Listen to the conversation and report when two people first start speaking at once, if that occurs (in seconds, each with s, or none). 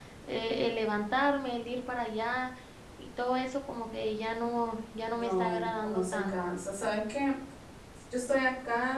5.2 s